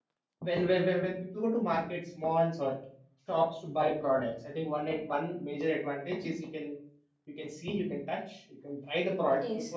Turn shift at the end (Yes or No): No